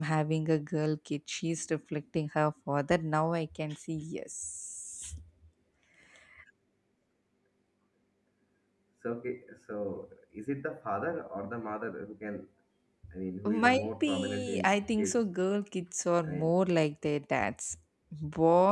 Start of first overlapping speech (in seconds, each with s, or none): 13.4 s